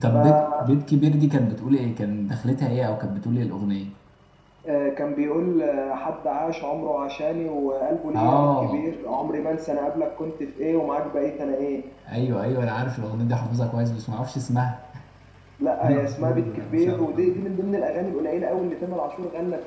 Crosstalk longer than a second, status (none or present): present